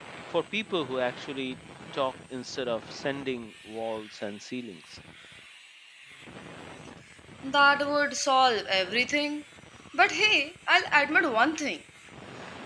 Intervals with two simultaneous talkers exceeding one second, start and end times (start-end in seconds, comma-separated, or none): none